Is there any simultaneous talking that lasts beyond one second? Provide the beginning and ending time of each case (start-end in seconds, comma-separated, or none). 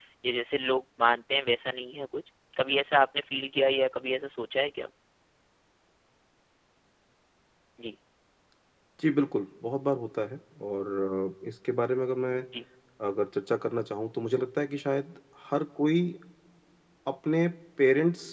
none